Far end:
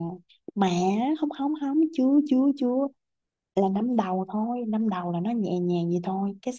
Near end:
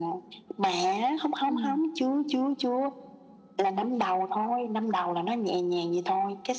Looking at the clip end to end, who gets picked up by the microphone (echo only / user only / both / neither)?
both